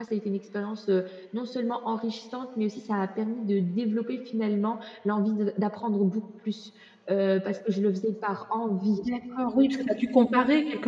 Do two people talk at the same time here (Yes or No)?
No